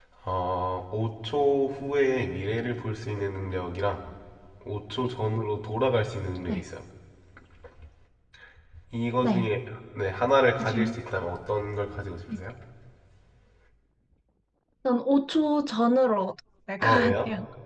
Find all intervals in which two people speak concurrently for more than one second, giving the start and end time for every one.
none

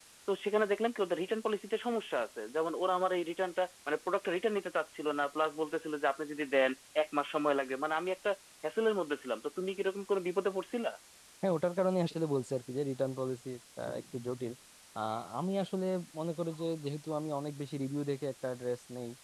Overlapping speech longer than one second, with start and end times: none

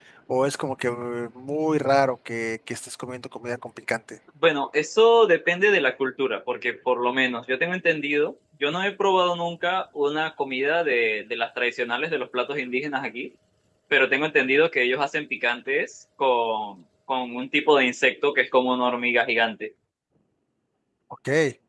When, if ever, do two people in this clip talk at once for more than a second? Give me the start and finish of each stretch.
none

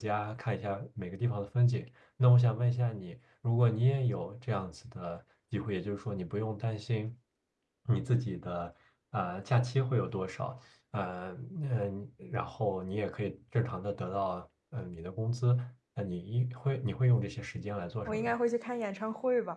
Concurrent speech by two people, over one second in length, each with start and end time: none

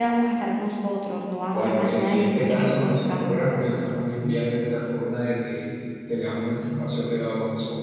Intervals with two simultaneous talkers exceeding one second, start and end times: 1.5-3.7

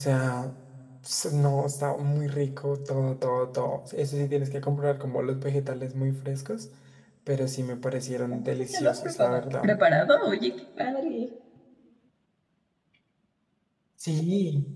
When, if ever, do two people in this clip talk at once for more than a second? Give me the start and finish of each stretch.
8.3-9.7

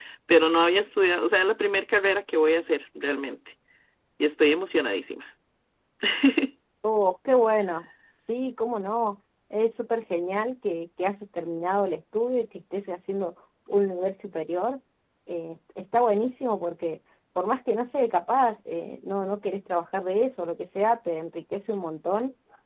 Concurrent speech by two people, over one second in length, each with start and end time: none

